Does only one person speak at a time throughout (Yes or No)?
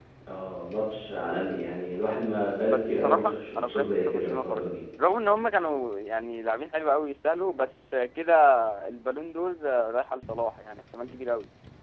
No